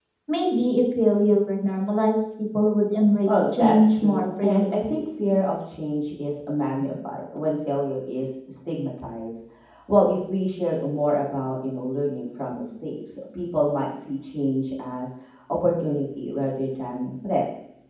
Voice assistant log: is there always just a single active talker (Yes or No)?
No